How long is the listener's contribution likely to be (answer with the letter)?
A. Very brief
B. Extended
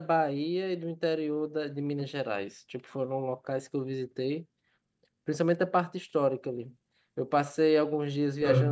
A